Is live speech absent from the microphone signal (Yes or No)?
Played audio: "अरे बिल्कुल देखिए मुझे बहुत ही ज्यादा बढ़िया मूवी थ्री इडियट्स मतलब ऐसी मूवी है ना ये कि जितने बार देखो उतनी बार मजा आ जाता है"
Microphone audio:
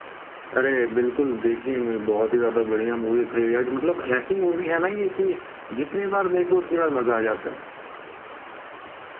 Yes